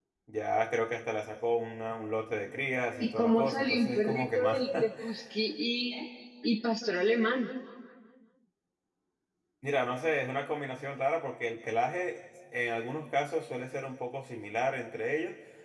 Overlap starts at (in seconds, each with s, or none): 3.0 s